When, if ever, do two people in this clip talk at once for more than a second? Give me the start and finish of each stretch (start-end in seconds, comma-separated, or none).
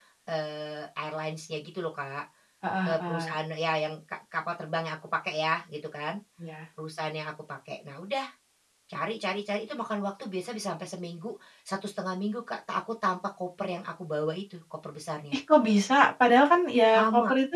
none